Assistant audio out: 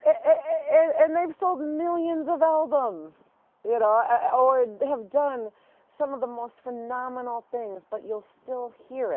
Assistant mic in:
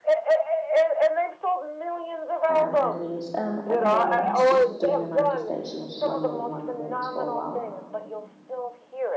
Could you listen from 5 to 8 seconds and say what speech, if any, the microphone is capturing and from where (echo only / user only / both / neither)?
both